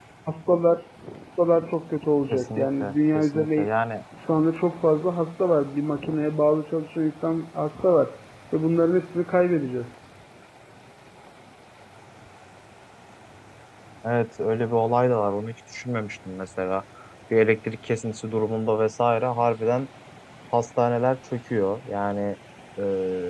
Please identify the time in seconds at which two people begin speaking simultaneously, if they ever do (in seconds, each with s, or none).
2.3 s